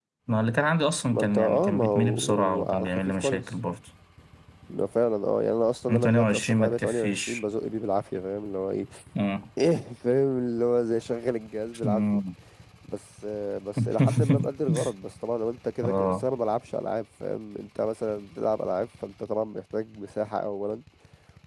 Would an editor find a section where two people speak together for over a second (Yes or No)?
Yes